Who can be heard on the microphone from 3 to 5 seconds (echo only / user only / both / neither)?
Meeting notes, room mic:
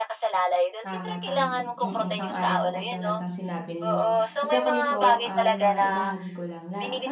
both